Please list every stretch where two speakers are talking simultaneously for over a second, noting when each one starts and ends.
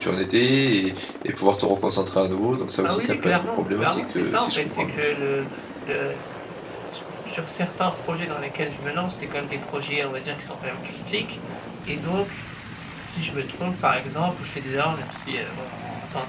2.8-5.0

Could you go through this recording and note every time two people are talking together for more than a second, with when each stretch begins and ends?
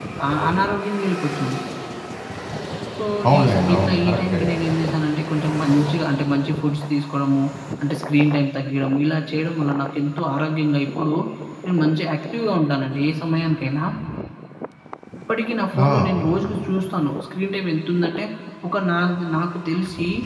3.3-4.5

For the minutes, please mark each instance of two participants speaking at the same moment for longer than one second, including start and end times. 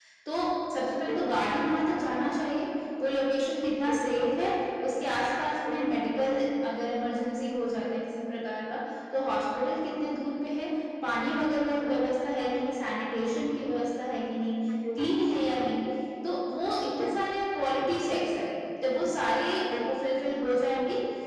none

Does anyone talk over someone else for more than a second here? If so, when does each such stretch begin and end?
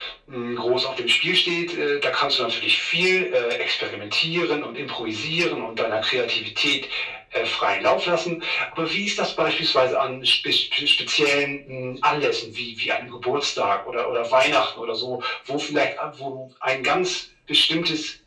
none

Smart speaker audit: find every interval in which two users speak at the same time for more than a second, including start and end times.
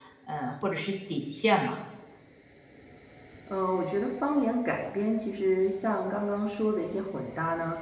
none

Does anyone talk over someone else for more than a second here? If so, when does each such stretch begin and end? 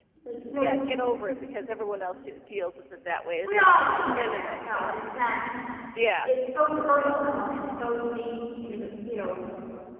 3.5-4.9

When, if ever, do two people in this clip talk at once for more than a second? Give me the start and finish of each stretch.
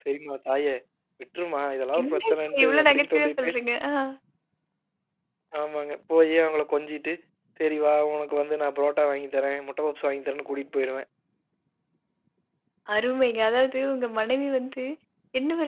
2.0-3.5

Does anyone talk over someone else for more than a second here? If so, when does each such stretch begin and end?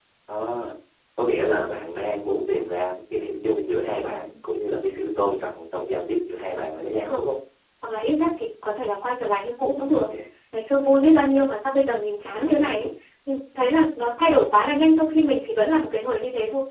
none

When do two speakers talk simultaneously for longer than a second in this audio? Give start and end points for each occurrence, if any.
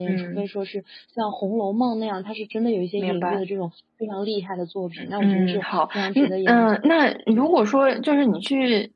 5.2-6.9

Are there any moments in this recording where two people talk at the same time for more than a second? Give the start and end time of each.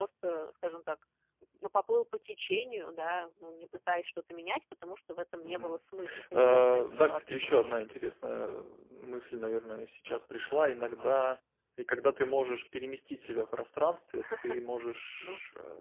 6.3-7.8

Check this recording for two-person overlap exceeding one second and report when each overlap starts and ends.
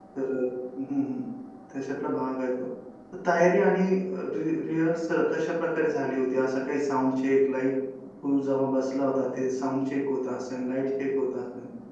none

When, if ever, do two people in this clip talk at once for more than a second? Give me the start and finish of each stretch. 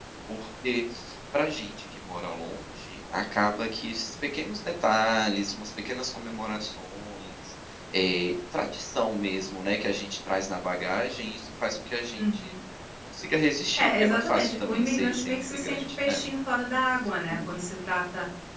13.8-16.2

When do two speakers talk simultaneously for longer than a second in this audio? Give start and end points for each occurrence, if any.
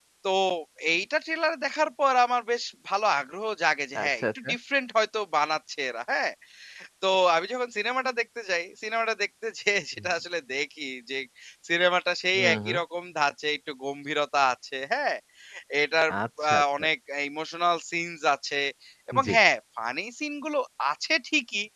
none

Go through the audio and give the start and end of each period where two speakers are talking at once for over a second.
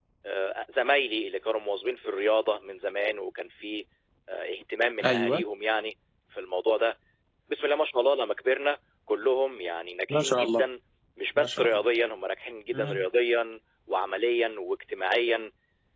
none

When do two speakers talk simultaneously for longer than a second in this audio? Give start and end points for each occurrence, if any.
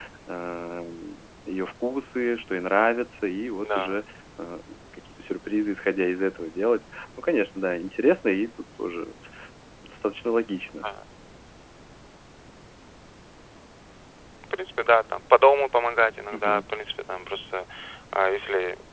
none

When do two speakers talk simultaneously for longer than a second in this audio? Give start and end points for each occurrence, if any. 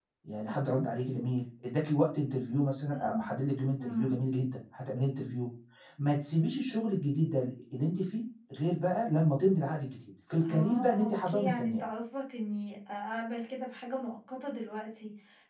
10.5-11.8

